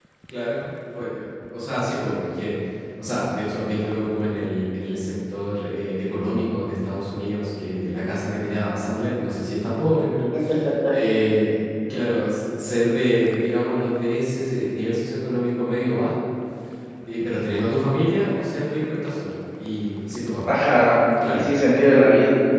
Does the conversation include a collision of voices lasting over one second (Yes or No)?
No